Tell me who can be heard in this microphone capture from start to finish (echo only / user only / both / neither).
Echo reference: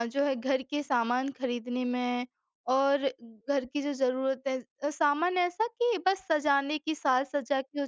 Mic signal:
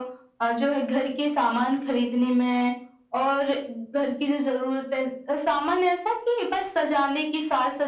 echo only